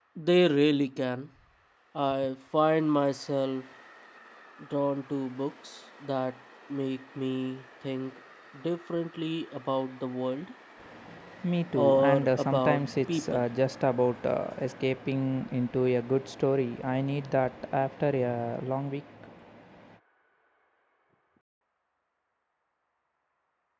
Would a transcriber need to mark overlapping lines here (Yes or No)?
Yes